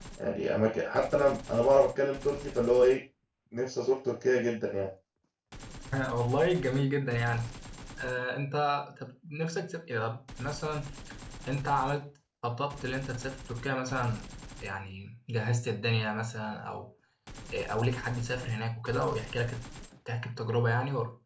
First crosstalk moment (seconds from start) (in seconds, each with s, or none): none